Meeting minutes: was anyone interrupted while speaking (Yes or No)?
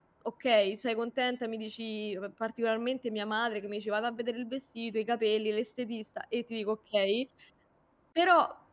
No